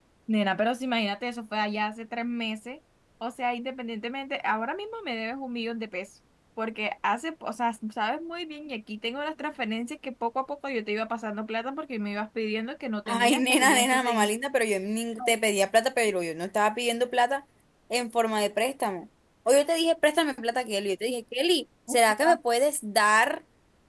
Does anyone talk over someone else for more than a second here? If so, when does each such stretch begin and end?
13.1-14.3

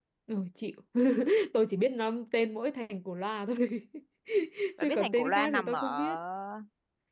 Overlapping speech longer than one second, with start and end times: 4.8-6.2

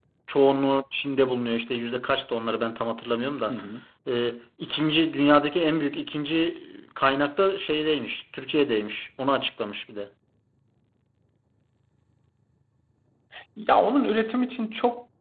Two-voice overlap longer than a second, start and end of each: none

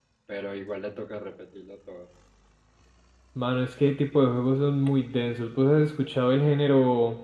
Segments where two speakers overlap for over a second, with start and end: none

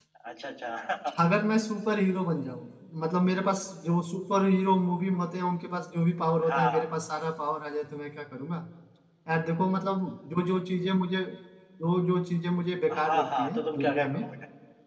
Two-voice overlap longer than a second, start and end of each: 12.9-14.2

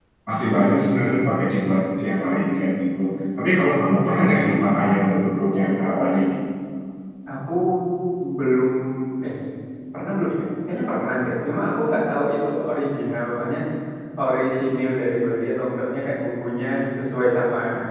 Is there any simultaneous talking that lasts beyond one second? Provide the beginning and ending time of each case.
none

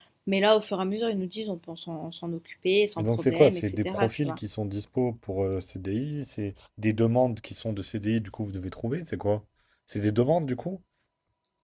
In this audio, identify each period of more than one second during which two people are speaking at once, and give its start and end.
3.0-4.4

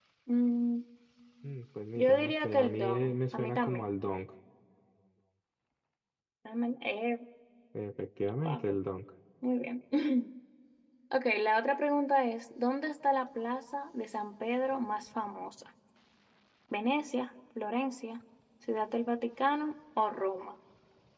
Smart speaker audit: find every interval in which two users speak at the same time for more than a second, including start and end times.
2.0-3.8

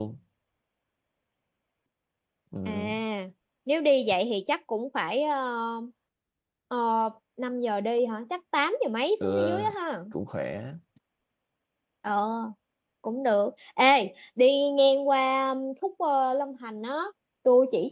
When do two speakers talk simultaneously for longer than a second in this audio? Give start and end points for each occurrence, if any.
none

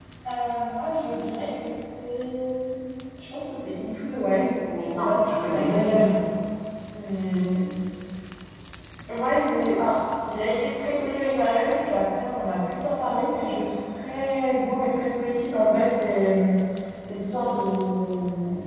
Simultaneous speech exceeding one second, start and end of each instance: 4.9-6.2

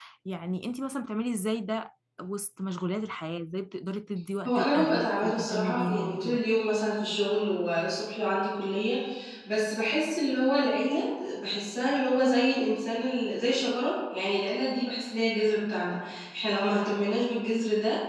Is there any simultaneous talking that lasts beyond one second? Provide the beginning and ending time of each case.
4.5-6.4

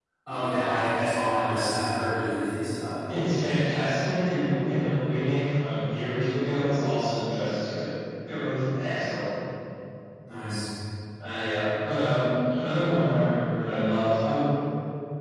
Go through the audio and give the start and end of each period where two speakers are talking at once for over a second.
none

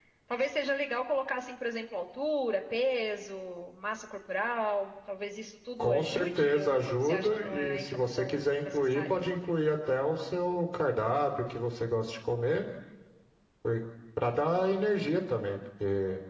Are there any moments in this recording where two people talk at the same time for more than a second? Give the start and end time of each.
5.8-9.2

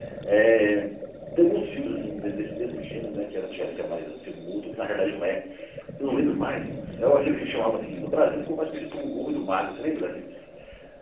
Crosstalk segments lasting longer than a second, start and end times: none

